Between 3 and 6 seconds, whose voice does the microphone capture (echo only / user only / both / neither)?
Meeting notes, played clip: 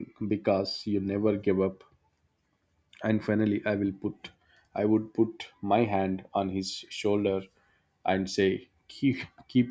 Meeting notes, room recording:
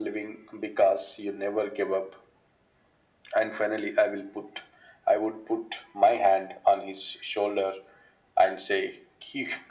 echo only